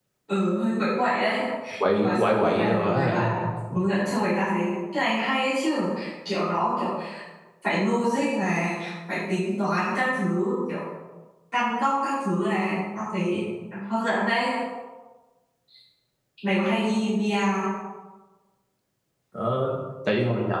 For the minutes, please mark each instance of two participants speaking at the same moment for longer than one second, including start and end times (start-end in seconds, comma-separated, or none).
1.9-3.3